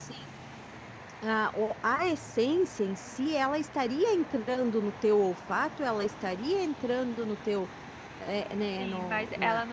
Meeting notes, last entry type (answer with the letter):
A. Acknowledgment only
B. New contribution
B